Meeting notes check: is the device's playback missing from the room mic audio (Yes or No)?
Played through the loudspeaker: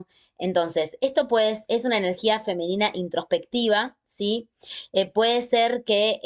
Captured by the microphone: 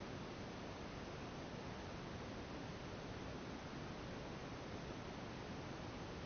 Yes